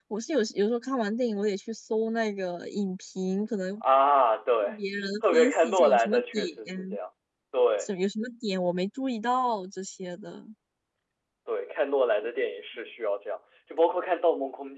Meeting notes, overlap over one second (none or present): present